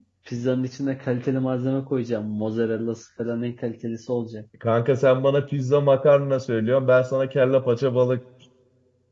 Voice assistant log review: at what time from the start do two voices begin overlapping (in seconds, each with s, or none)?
none